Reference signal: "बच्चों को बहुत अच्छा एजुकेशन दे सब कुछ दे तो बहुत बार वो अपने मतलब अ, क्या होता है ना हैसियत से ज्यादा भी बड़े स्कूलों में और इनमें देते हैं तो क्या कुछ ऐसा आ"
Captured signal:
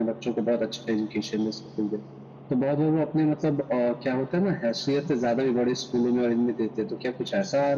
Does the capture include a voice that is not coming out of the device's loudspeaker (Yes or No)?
No